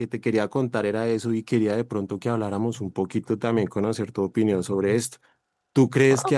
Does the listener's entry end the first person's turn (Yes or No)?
No